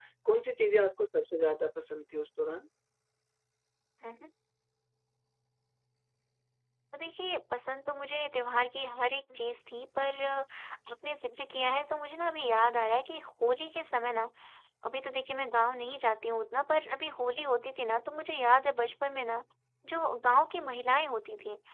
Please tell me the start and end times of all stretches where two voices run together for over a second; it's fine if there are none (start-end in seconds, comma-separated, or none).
none